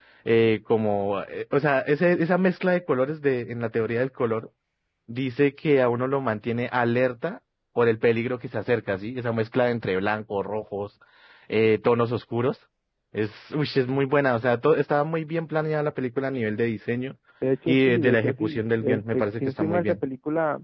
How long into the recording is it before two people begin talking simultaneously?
17.7 s

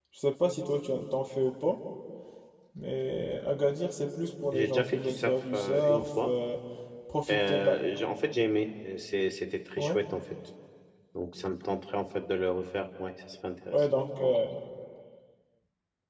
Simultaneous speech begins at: 4.5 s

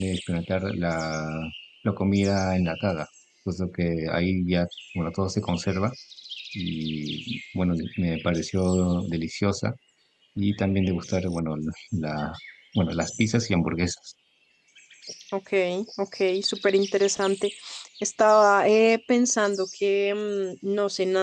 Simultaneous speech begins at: none

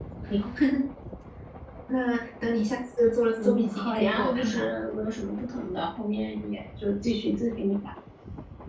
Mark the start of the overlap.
3.4 s

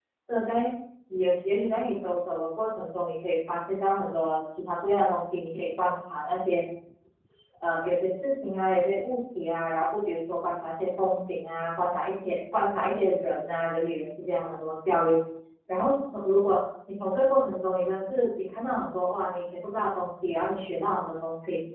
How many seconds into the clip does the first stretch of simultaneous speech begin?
none

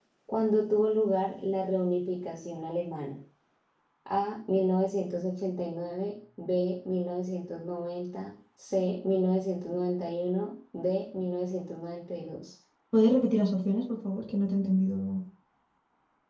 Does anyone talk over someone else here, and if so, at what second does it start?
none

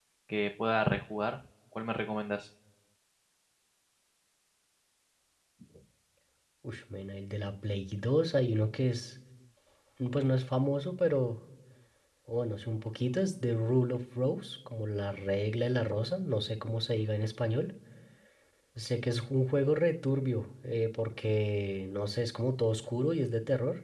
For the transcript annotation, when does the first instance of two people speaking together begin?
none

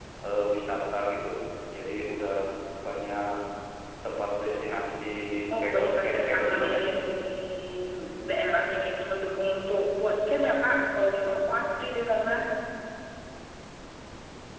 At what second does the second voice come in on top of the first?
5.6 s

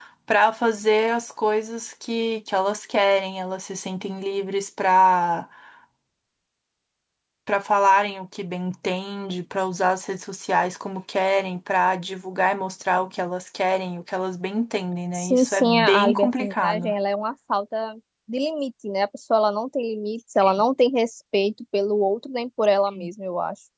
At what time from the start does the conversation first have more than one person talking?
15.1 s

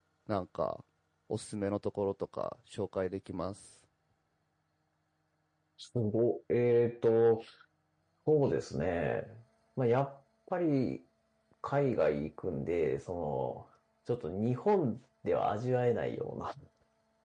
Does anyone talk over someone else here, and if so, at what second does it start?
none

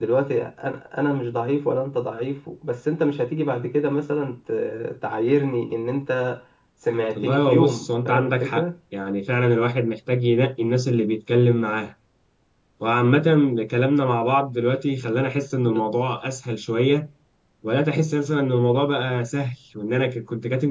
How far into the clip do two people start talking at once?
7.2 s

